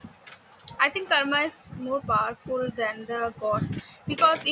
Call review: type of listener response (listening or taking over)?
listening